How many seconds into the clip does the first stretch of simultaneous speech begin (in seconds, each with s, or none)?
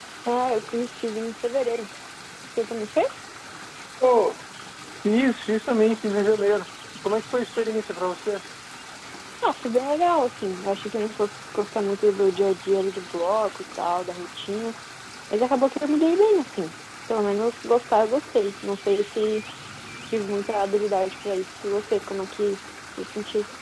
none